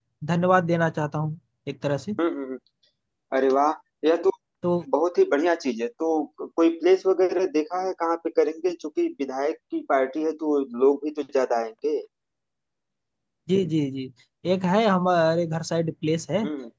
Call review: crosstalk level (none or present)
none